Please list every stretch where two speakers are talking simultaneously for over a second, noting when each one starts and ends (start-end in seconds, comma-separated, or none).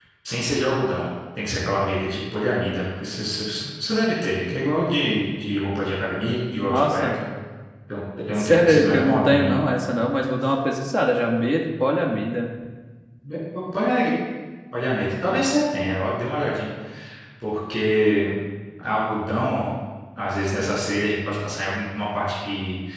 8.4-9.6